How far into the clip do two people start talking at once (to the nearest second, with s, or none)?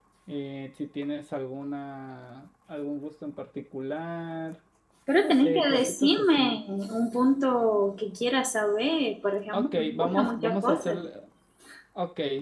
5 s